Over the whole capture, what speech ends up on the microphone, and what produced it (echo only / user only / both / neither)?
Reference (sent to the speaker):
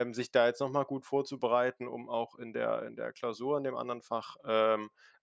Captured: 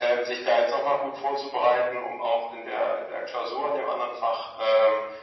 echo only